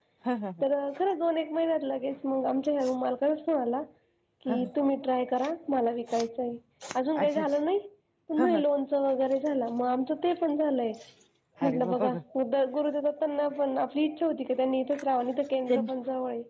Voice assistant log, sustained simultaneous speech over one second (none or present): none